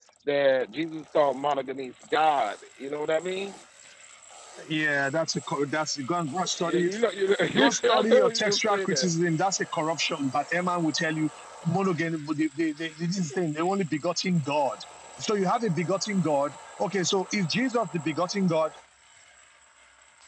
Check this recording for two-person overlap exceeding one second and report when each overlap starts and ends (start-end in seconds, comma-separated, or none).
7.5-9.1